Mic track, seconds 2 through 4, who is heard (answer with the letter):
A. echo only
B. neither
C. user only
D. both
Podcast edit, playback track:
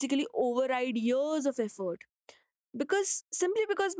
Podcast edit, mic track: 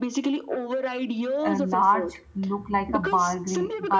D